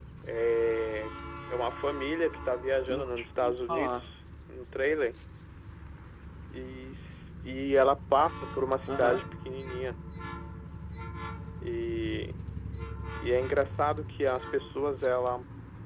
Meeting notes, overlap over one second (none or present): present